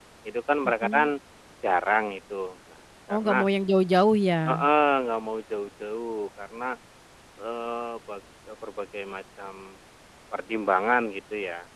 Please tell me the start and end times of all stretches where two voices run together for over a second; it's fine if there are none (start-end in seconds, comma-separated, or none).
none